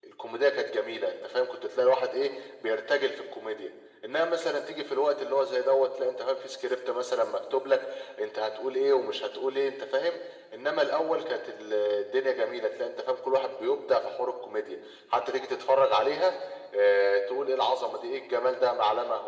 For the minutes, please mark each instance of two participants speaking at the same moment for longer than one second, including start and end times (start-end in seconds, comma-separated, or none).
none